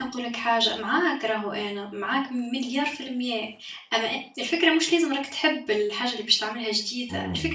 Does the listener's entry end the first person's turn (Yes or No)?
No